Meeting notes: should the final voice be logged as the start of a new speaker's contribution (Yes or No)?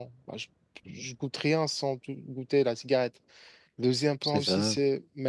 No